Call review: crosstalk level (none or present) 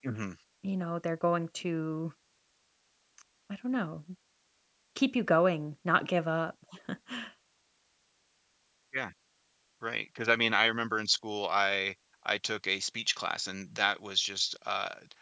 none